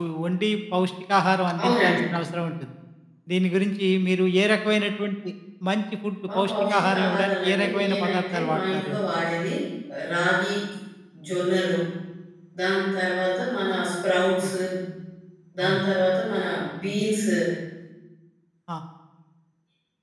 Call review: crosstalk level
present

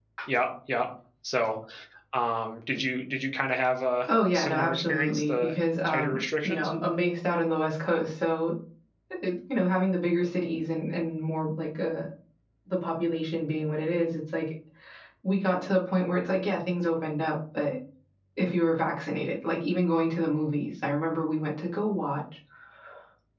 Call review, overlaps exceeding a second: present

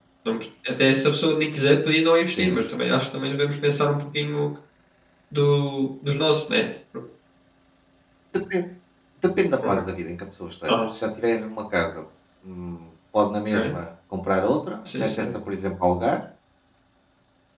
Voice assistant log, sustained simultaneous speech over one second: none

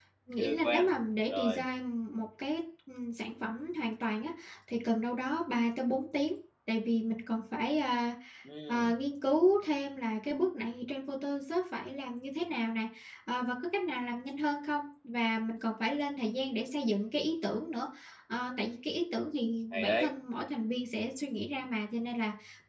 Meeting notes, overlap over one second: none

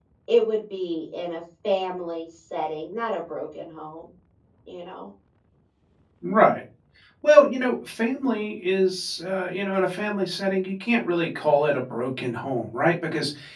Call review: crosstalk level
none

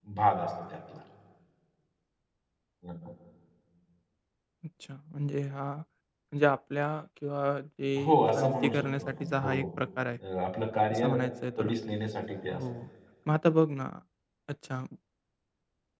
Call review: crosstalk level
present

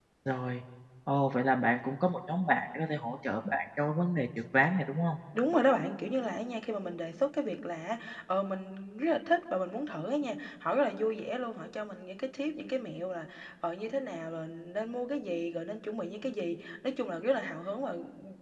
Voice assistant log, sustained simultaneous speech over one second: none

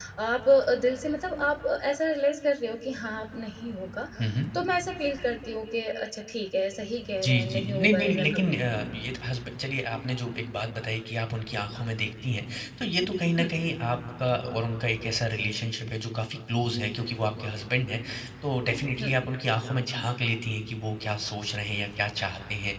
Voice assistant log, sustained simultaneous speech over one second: present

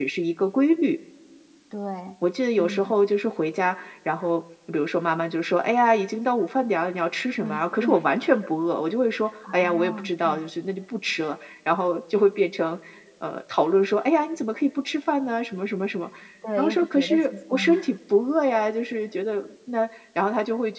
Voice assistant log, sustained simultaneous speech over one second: present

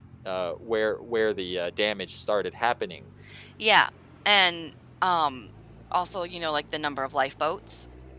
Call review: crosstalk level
none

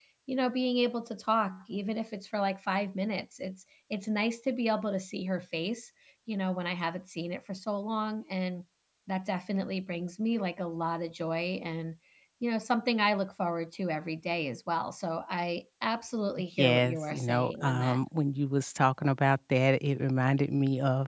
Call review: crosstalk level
present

